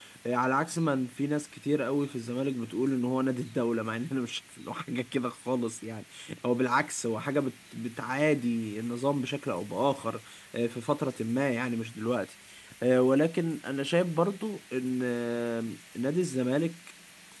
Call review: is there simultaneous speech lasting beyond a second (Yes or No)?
No